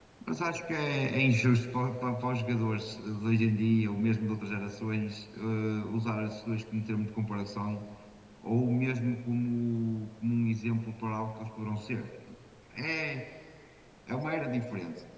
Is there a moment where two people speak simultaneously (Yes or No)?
No